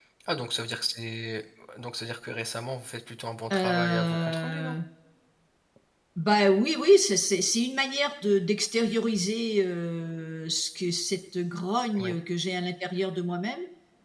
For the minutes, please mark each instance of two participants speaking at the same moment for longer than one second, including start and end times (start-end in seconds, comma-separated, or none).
3.5-4.8